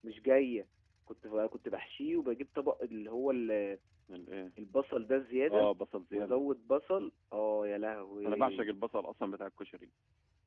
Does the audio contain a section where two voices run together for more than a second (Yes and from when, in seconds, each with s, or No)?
No